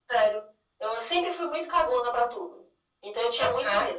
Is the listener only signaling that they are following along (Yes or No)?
Yes